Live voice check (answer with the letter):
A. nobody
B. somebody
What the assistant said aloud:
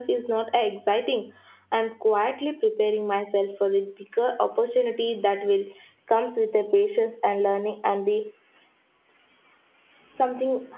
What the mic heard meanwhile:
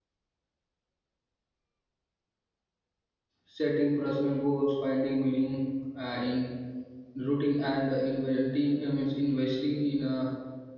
B